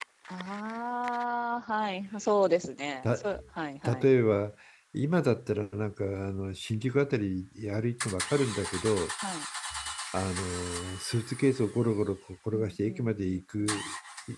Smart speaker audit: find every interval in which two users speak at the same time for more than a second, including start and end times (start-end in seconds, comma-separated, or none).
12.5-13.8